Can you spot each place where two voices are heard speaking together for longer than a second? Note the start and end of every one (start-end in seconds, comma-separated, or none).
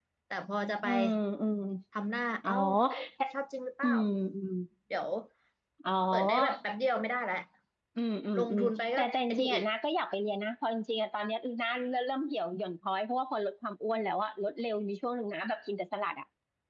8.4-9.6